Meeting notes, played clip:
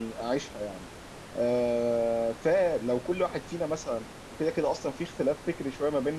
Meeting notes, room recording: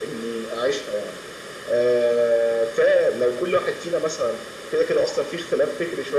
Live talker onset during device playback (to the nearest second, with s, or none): none